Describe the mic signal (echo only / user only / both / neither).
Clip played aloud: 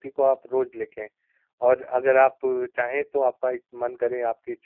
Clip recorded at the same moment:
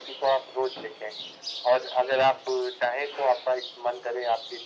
echo only